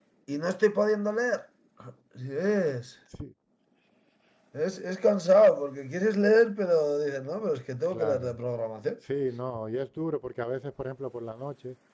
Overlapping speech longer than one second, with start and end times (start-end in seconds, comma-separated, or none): none